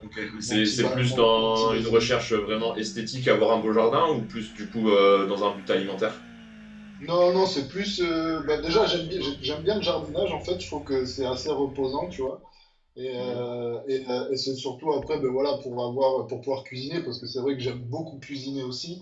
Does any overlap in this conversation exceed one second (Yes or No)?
Yes